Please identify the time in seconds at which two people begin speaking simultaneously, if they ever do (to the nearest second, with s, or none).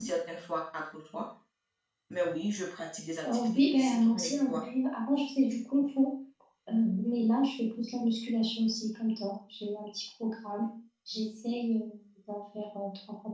3 s